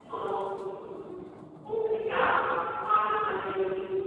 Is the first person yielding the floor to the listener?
No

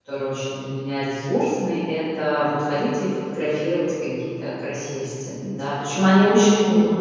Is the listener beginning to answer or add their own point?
Yes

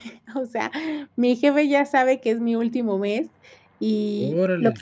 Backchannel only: Yes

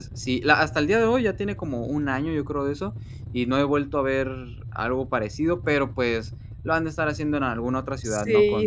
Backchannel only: No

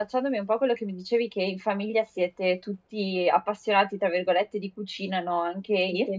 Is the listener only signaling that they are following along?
Yes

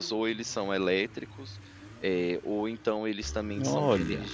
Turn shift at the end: No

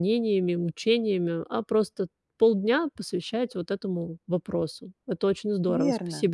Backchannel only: No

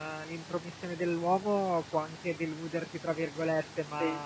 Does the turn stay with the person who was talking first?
Yes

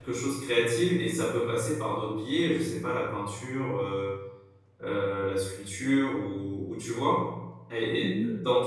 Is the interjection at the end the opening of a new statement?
No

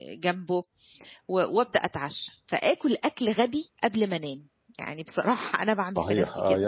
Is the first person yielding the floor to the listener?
Yes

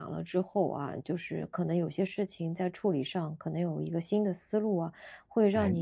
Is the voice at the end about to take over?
No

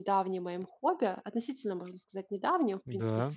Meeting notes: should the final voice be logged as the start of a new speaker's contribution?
No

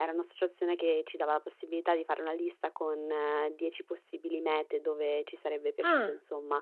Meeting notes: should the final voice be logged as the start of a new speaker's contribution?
No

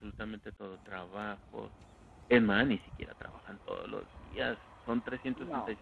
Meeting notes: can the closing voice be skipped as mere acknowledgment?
Yes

